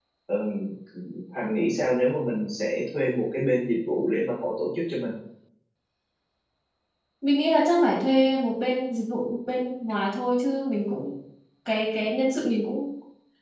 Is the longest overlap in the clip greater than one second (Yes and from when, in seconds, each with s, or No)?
No